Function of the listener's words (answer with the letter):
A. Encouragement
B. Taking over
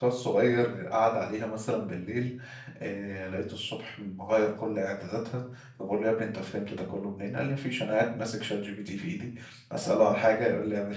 A